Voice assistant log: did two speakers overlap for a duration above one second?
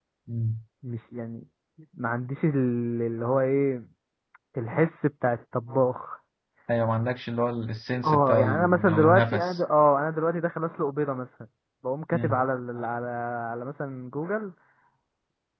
Yes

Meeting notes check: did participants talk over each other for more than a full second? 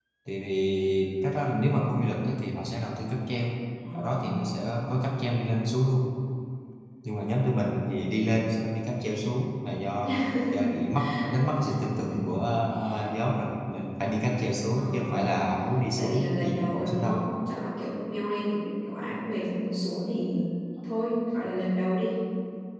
Yes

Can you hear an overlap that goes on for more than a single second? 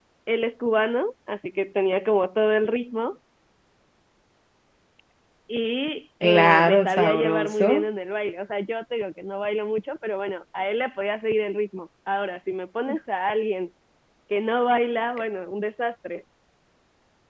Yes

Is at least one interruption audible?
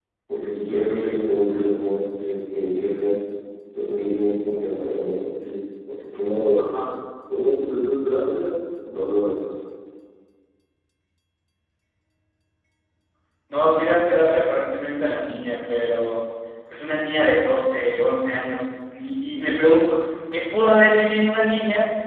No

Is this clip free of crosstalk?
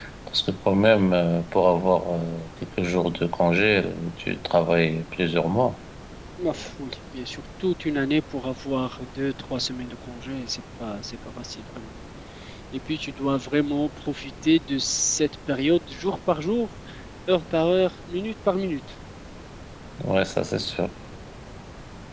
Yes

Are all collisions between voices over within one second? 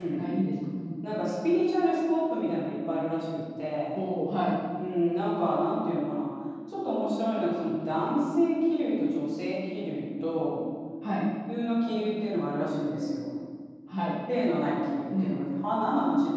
Yes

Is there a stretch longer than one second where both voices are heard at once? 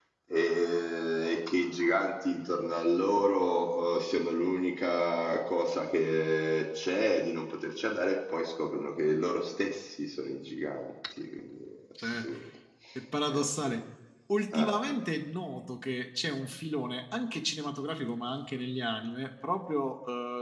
No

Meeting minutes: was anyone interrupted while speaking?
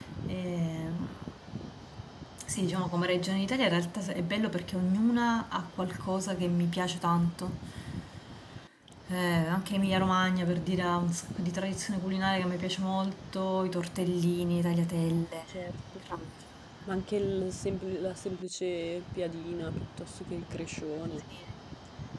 No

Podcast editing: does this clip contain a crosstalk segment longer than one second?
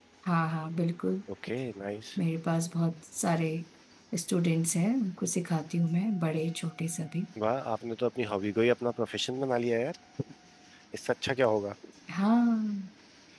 No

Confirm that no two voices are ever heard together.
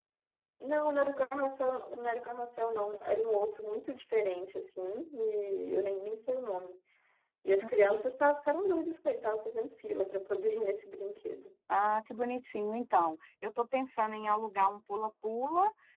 Yes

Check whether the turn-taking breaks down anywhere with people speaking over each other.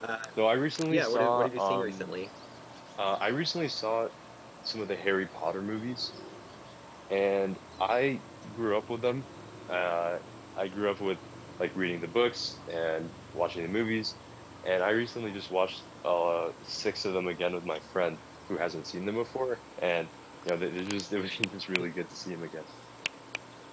Yes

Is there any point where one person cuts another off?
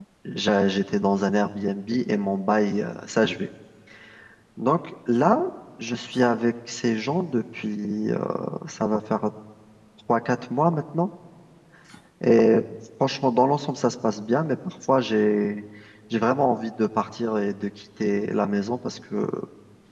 No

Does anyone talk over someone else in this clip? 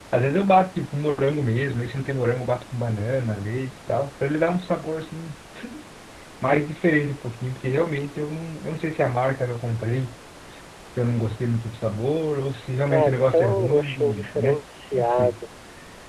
Yes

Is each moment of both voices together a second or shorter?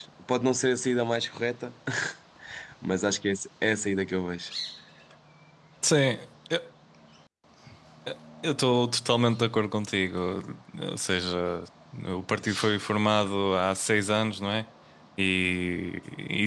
Yes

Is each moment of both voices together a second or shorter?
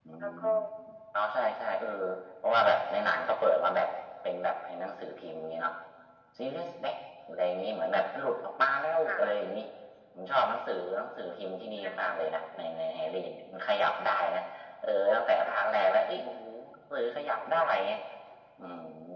Yes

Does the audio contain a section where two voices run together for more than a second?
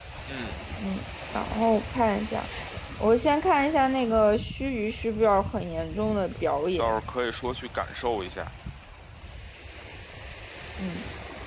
No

